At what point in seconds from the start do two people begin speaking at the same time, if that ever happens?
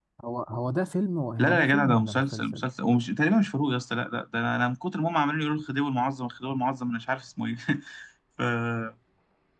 1.4 s

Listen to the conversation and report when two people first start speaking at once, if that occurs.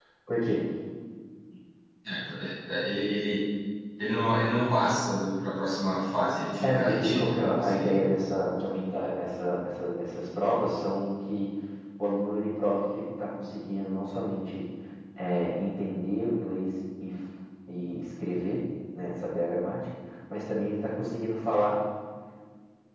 6.6 s

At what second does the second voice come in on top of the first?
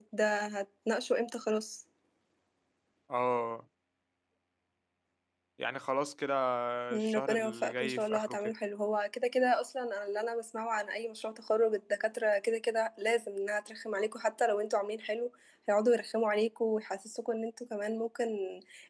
7.0 s

